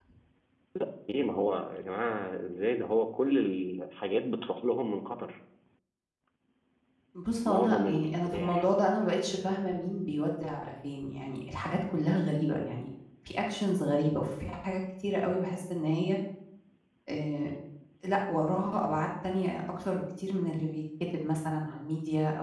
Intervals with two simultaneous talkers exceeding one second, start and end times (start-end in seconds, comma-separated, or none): 7.5-8.7